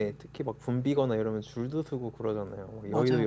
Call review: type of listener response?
taking over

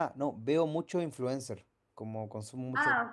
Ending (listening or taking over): listening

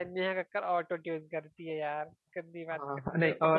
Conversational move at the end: taking over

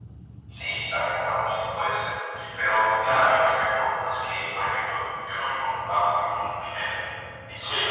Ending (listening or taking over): listening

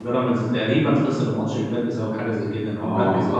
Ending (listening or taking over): taking over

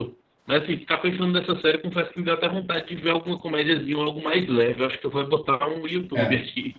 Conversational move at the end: taking over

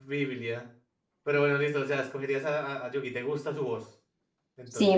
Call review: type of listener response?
taking over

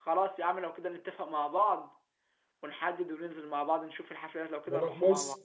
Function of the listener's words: taking over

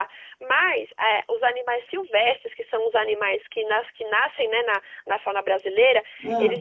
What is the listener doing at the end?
listening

